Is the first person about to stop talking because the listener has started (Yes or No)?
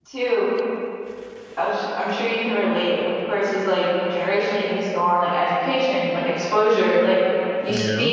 No